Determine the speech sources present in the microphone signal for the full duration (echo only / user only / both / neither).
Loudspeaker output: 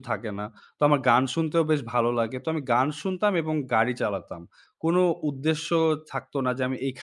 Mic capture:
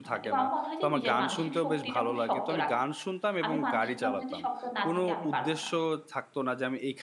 both